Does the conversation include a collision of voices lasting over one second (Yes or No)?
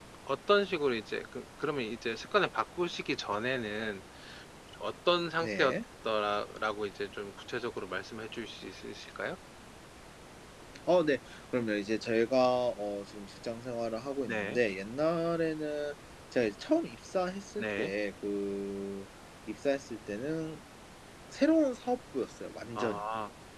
No